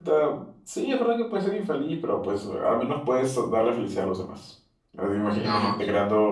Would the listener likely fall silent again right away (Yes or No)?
Yes